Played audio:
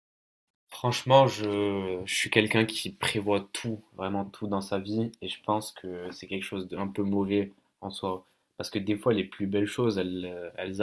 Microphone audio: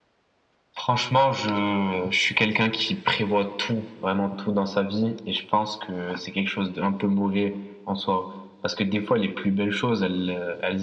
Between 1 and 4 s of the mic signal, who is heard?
echo only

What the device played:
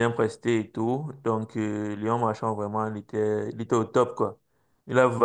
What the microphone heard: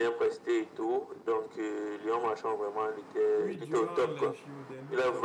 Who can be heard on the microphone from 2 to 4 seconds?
both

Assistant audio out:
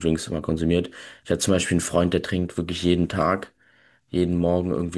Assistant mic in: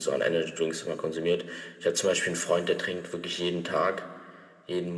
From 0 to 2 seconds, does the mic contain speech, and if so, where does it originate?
echo only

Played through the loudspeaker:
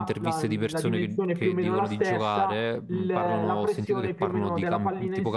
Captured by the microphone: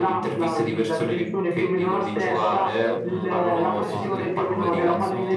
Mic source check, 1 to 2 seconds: echo only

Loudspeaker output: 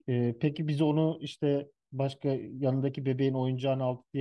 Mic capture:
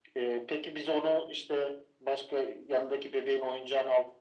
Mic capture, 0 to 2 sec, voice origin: echo only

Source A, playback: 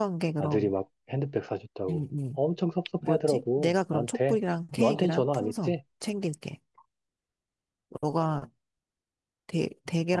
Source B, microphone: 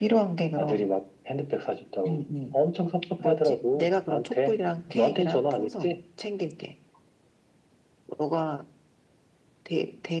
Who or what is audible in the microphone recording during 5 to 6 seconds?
echo only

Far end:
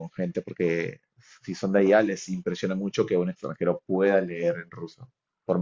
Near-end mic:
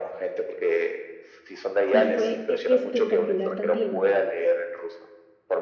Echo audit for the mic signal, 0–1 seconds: echo only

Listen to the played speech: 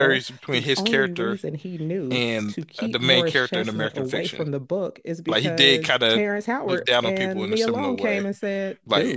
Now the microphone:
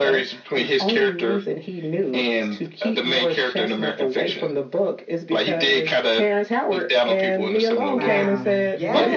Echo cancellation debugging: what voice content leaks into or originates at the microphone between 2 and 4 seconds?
echo only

